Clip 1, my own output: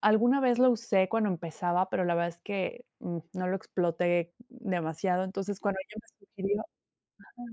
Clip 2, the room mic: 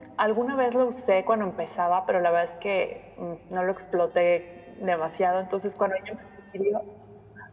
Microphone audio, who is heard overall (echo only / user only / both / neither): echo only